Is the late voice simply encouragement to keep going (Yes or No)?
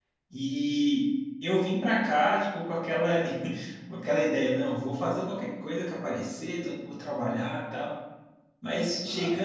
Yes